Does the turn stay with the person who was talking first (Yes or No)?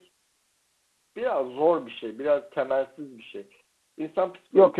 No